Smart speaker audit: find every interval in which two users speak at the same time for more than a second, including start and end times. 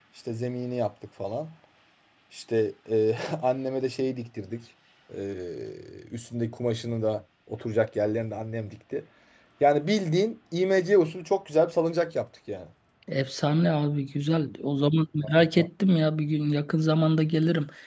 none

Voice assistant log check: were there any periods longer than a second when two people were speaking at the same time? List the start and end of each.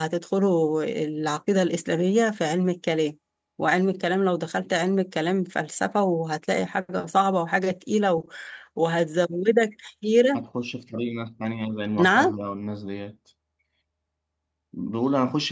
none

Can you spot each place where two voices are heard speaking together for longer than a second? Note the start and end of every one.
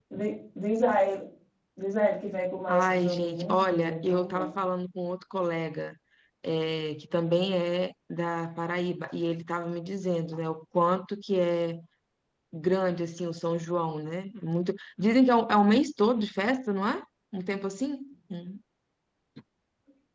2.7-4.5

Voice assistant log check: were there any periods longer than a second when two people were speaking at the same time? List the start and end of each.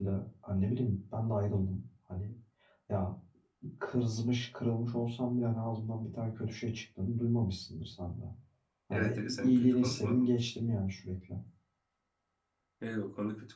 8.9-10.3

